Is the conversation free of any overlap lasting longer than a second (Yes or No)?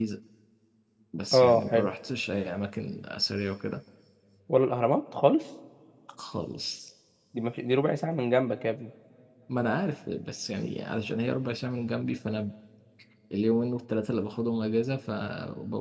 Yes